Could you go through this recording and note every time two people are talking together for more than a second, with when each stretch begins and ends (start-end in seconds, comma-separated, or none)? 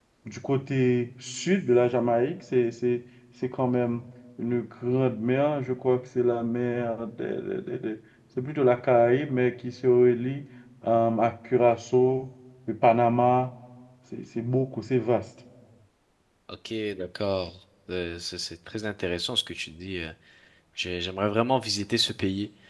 none